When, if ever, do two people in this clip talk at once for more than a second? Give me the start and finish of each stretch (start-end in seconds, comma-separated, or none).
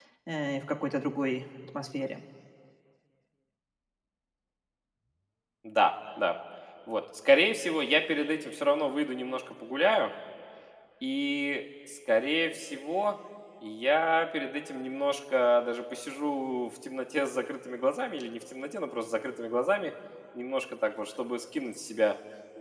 none